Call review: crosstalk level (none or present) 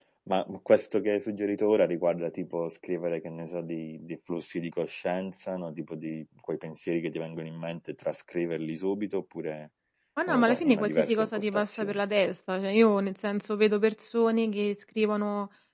present